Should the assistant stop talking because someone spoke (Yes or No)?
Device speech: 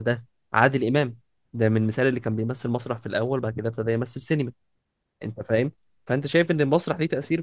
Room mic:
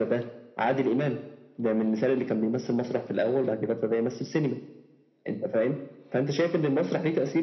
No